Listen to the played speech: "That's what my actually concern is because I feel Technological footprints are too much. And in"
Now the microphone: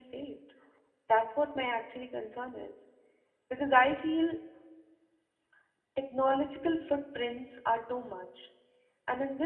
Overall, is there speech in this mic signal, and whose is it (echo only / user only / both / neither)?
echo only